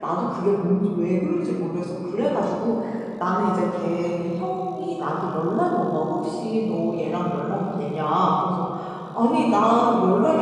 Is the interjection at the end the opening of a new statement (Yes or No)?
No